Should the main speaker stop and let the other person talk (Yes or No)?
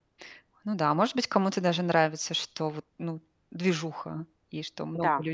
Yes